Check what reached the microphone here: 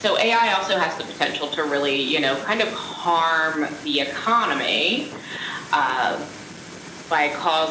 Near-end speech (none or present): none